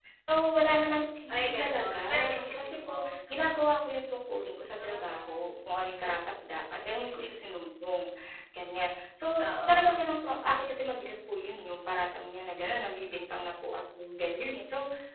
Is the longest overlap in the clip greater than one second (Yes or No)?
Yes